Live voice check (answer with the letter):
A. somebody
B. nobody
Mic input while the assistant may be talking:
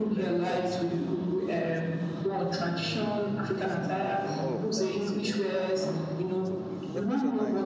A